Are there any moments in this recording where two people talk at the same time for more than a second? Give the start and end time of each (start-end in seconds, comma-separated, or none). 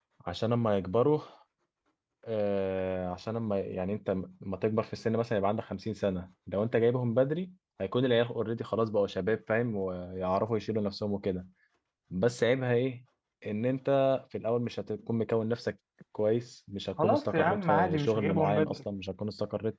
17.0-18.8